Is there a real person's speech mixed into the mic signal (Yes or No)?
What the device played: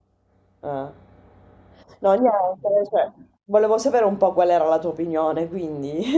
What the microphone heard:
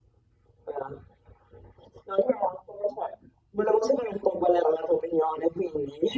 No